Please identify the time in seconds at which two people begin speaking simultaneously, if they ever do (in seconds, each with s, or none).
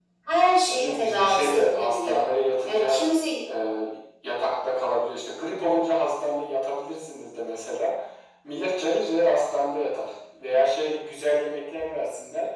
0.6 s